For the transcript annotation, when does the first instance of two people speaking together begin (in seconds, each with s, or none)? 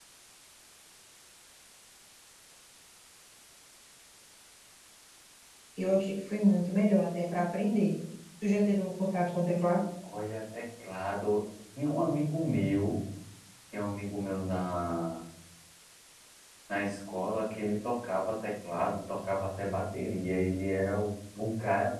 none